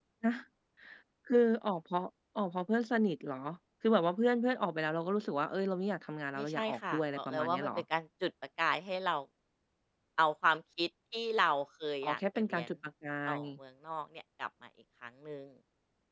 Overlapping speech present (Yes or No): Yes